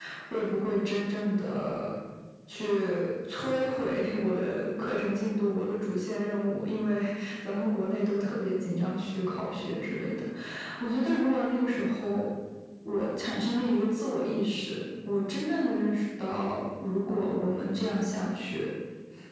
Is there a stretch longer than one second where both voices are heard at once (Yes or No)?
No